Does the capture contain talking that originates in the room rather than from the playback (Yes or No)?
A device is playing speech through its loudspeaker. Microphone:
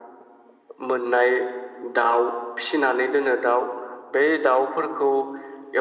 No